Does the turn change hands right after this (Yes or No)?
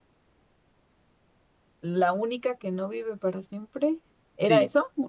Yes